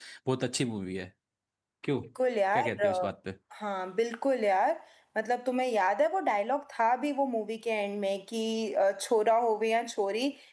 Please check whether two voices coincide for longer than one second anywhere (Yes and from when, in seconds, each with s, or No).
No